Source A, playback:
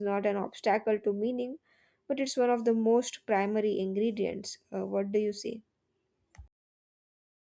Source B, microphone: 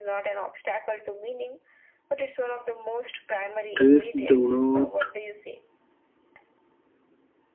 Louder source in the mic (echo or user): user